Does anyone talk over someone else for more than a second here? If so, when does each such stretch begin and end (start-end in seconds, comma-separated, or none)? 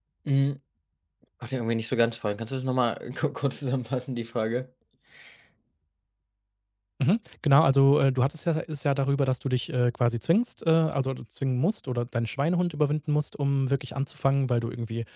none